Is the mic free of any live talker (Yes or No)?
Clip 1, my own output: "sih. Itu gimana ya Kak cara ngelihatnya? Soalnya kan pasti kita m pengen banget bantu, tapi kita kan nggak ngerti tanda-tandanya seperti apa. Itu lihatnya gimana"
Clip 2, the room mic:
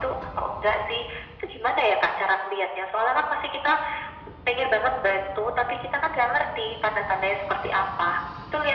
Yes